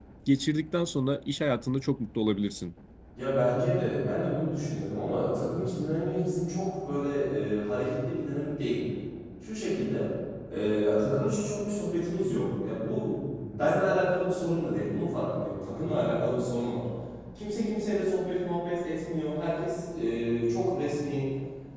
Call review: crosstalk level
none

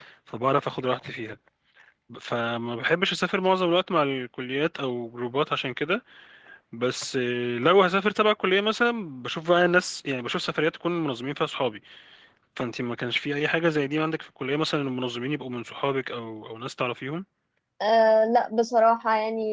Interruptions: none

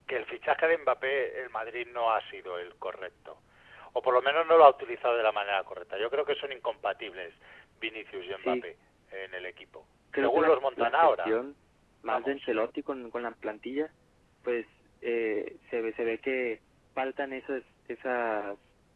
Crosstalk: present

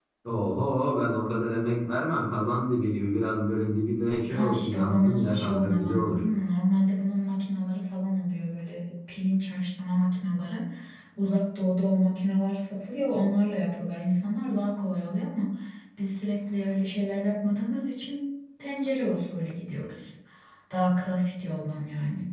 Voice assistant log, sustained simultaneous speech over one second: present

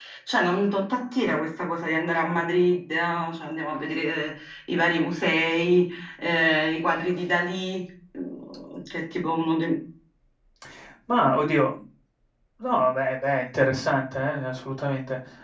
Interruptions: none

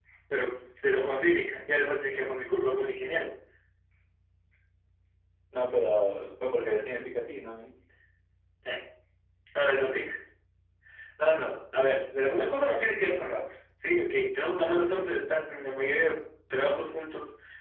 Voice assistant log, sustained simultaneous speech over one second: none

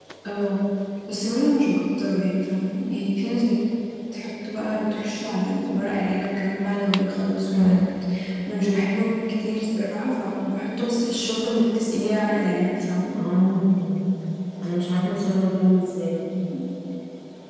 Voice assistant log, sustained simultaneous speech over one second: none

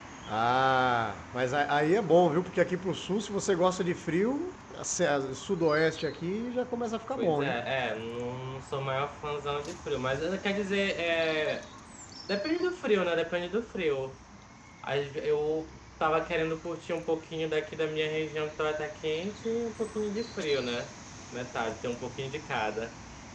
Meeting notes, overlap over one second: none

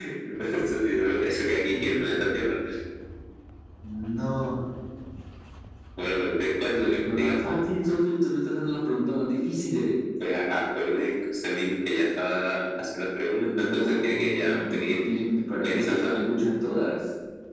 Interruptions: present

